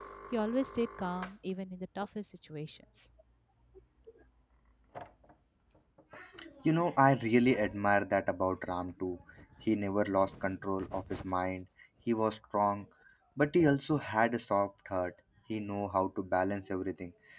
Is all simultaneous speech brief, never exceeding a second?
Yes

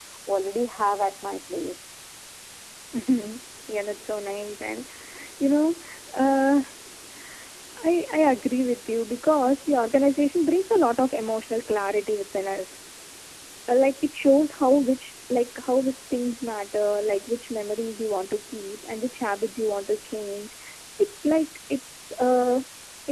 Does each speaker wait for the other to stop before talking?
Yes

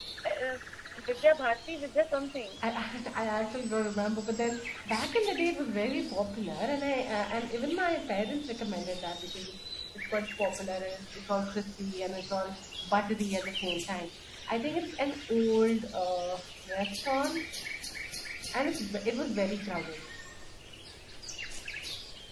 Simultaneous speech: No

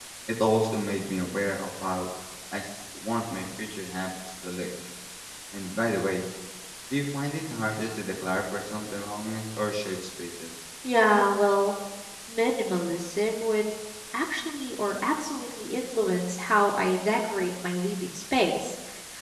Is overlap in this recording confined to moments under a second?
Yes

